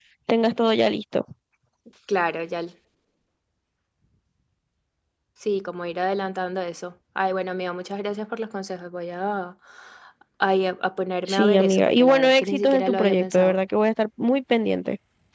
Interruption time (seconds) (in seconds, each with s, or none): 11.3 s